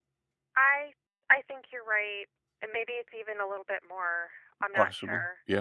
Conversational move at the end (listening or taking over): taking over